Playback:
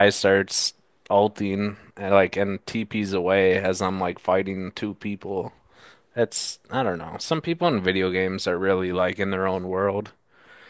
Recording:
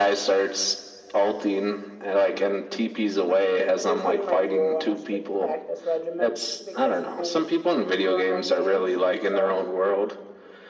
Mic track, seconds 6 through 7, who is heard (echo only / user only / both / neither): both